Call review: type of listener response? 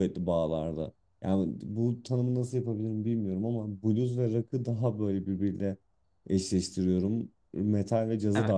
listening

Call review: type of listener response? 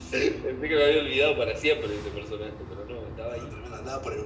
taking over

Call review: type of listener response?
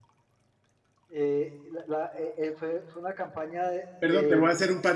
taking over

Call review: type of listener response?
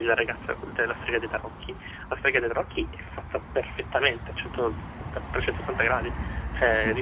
listening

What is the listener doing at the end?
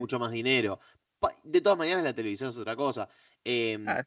listening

